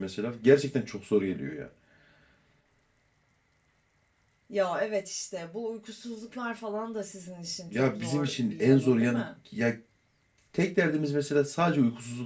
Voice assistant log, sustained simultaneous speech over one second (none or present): present